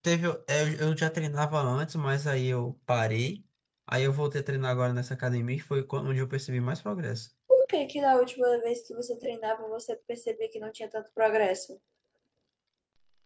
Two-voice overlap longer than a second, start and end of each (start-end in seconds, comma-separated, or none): none